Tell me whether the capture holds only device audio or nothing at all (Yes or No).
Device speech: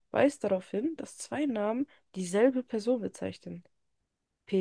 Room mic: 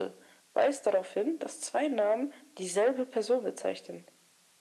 Yes